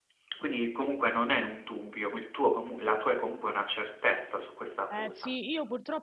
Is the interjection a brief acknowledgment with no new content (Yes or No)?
No